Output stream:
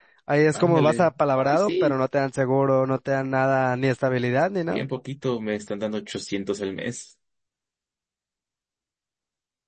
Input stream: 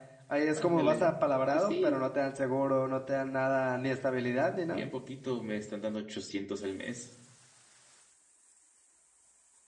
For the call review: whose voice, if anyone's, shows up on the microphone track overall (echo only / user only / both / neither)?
echo only